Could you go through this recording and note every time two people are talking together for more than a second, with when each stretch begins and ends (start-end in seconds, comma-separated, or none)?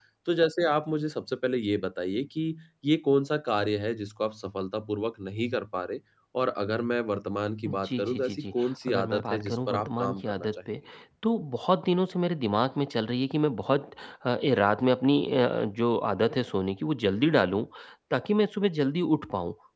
7.7-10.6